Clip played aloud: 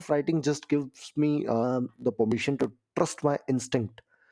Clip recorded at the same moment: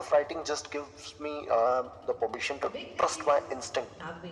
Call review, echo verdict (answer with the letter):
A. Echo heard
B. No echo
A